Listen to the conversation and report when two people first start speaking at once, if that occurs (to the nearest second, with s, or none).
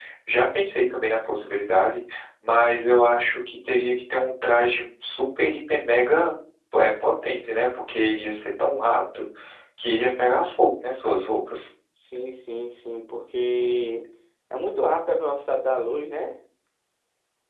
none